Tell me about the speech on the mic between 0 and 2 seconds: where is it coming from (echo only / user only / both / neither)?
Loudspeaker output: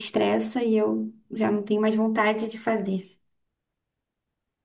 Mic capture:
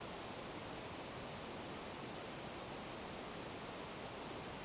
neither